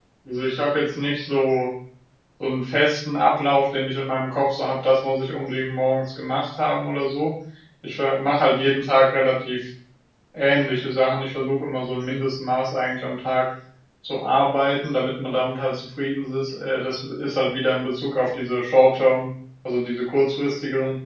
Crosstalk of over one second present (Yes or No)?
No